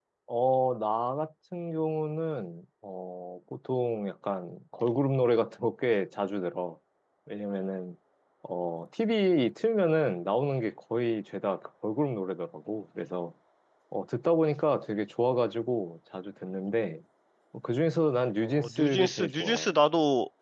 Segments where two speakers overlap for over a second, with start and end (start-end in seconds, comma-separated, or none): 18.4-19.7